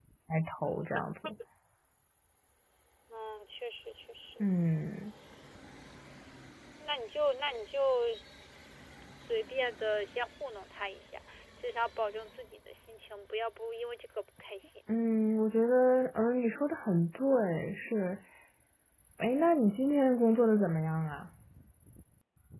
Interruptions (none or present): none